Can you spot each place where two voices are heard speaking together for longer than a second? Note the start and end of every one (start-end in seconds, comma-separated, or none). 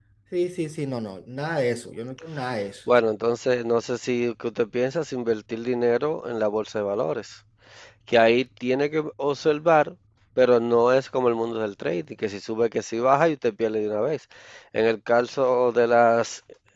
none